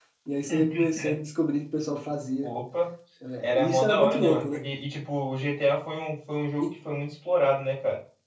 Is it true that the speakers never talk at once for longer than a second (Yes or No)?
No